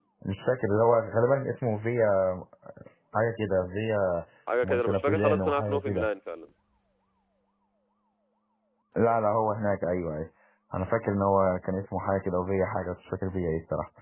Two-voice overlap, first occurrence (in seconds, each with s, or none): 4.6 s